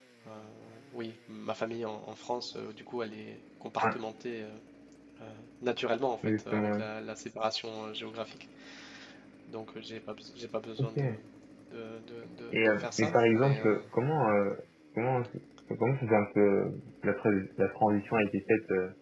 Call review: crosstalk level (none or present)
present